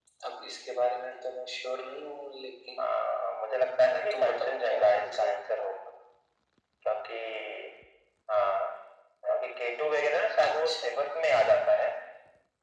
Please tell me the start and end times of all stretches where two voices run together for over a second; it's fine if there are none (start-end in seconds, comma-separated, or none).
4.1-5.3